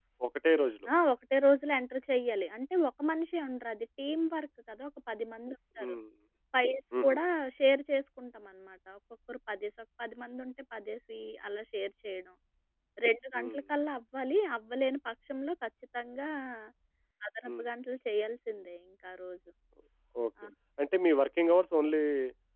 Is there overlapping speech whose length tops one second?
No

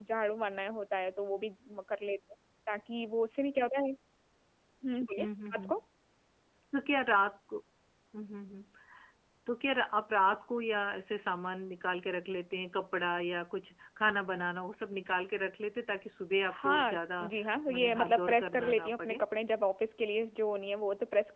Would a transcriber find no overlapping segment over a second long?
No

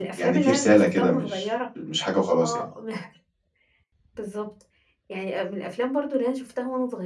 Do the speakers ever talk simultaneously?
Yes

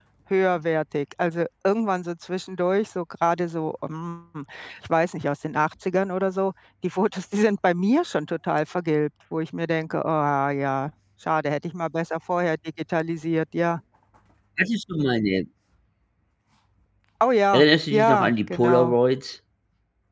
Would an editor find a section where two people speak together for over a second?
Yes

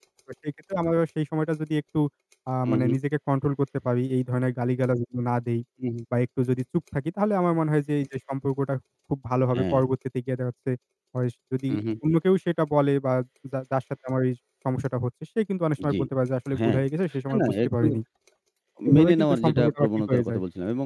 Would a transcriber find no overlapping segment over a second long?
No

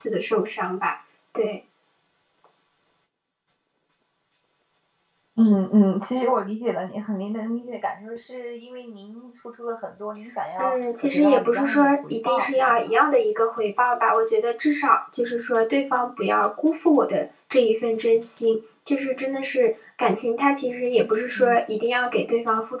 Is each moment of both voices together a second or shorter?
No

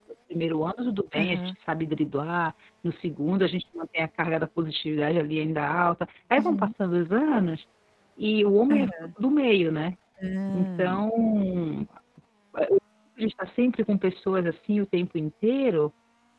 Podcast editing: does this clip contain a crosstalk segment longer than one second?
No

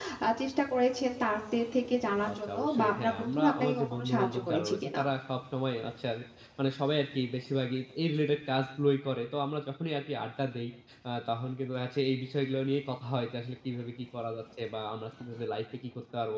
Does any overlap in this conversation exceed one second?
Yes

